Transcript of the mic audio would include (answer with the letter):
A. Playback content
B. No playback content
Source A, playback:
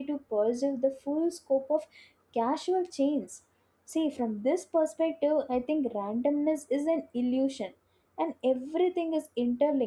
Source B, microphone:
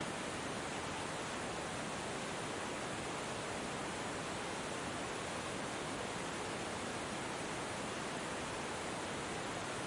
B